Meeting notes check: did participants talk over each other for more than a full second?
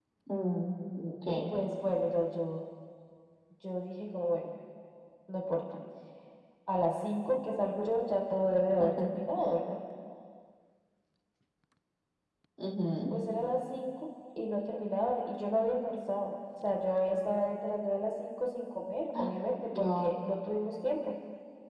No

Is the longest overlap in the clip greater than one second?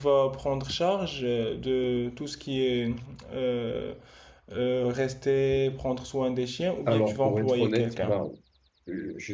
Yes, from 6.9 s

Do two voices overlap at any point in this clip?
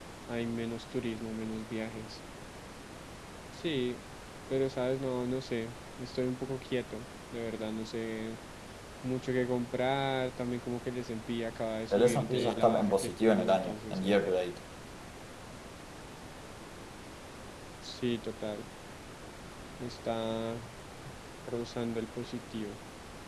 Yes, from 11.9 s

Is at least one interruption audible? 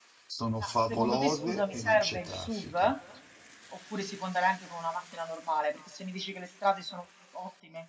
Yes, from 0.6 s

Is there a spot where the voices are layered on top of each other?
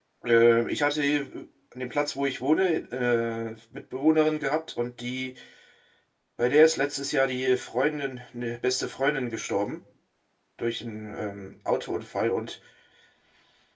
No

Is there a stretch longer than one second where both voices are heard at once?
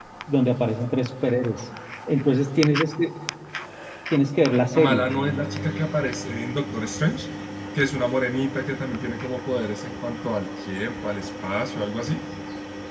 No

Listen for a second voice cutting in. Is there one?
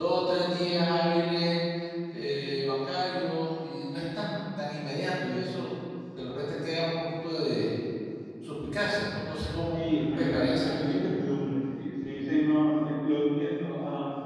Yes, from 9.7 s

